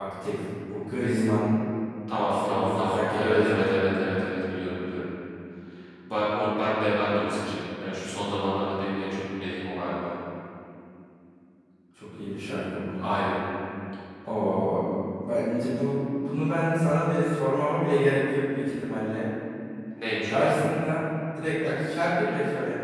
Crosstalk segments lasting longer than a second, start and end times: 2.3-3.7

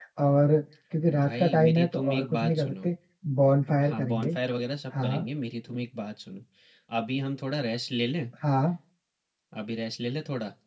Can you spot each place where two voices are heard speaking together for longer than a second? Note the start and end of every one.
1.2-2.9

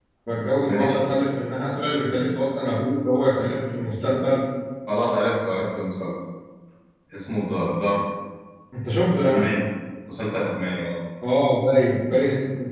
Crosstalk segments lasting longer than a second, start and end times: none

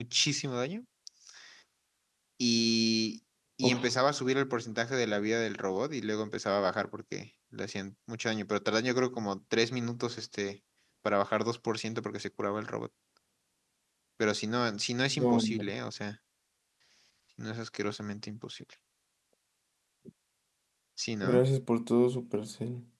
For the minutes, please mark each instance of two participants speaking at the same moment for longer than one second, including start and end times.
none

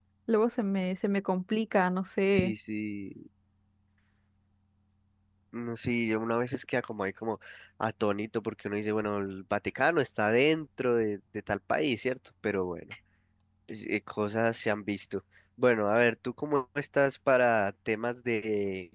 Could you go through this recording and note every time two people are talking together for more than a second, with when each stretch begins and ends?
none

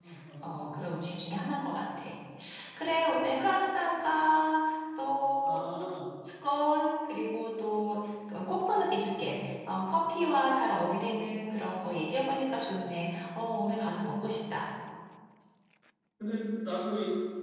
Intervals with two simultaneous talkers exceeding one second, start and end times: none

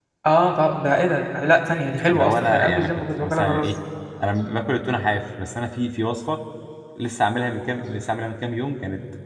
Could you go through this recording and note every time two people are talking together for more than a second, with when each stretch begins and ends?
2.1-3.7

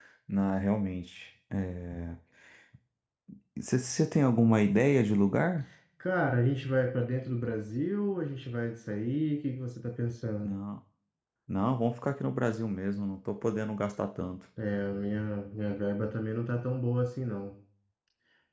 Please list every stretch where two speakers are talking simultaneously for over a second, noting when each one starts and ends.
none

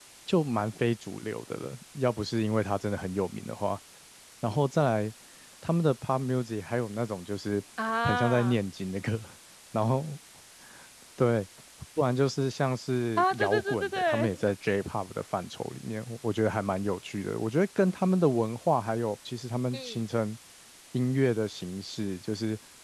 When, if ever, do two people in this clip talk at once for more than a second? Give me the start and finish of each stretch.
13.2-14.4

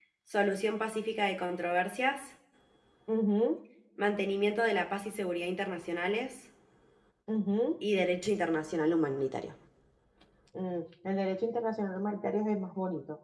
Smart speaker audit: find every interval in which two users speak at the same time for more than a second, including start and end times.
none

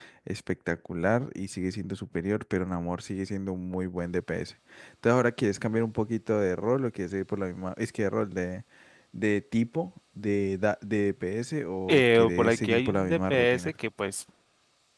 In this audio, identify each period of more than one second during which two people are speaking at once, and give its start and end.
11.9-13.7

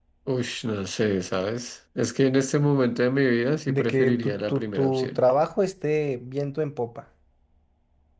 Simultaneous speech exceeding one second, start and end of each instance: 3.7-5.2

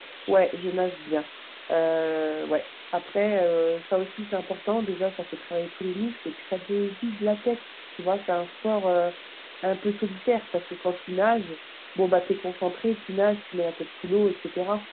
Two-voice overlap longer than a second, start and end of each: none

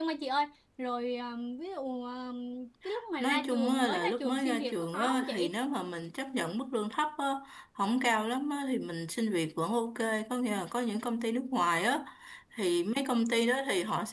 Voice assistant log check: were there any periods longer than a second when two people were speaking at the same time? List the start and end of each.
3.2-5.5

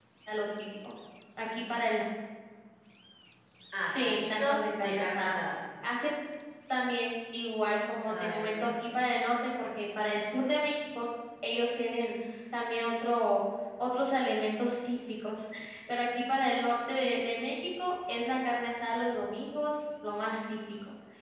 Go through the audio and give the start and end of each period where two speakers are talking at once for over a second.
3.9-5.4

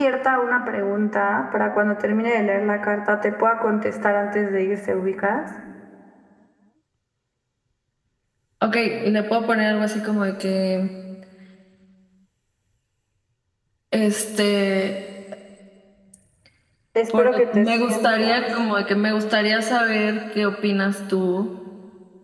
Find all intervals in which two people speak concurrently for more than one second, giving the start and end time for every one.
17.2-18.4

